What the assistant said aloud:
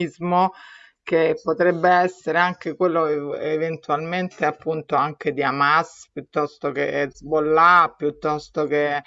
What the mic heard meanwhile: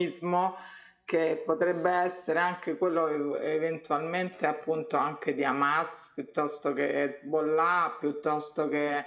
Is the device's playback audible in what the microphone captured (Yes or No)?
Yes